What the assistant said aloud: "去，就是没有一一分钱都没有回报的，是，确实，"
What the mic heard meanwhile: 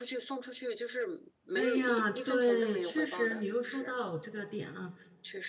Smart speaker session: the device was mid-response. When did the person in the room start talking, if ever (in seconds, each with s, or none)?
1.5 s